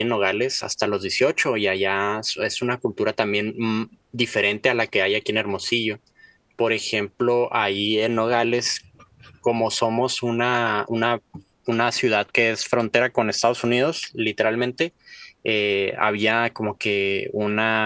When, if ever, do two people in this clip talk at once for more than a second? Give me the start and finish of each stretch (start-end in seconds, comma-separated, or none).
none